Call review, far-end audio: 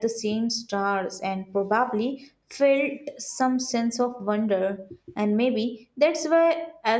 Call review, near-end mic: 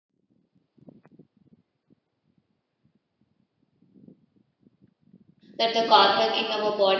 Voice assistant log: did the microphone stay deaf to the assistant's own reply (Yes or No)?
Yes